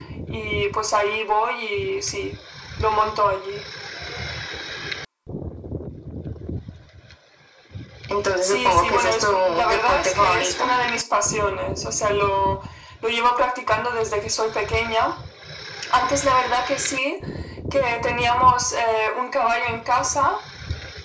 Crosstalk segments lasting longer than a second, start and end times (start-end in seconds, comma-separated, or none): 8.4-10.7